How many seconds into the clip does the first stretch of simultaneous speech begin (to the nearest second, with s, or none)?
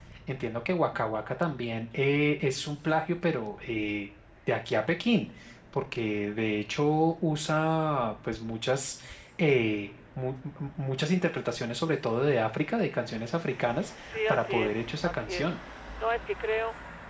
14 s